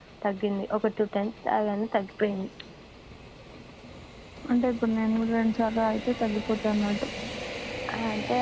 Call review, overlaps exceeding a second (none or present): none